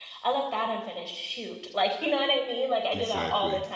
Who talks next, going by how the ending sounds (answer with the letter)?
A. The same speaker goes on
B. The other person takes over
A